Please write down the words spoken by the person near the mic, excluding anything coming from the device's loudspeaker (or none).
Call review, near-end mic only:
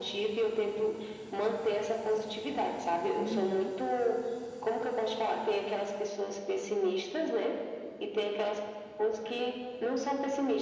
Uhum,